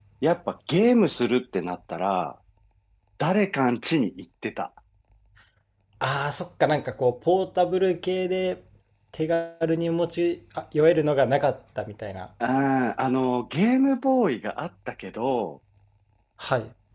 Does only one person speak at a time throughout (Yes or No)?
Yes